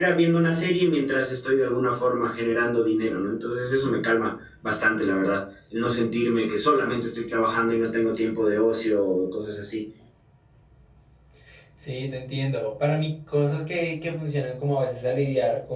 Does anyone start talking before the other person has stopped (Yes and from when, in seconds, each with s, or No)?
No